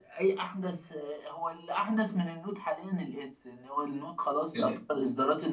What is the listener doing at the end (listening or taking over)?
listening